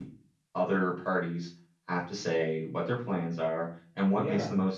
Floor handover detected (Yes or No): No